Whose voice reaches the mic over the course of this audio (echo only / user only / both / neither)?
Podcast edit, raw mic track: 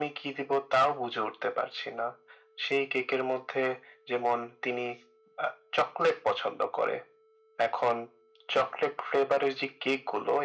echo only